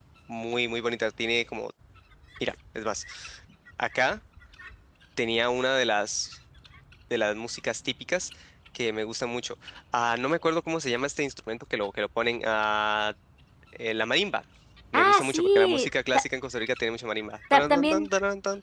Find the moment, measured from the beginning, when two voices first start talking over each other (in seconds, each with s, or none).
14.9 s